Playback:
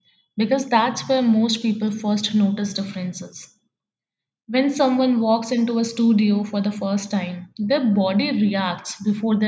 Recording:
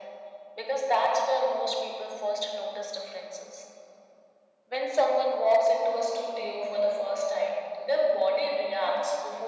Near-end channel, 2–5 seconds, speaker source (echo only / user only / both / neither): echo only